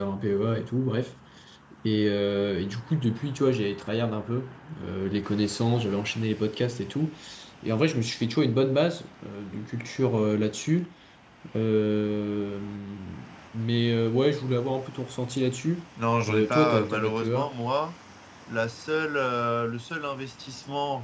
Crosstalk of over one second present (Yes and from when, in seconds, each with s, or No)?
Yes, from 16.3 s